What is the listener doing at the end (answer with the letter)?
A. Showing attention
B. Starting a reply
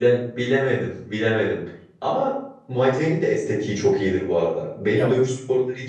A